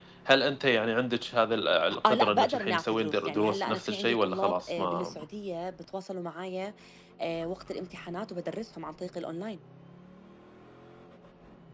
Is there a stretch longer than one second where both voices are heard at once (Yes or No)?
Yes